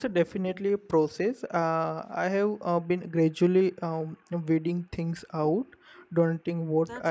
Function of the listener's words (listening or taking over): taking over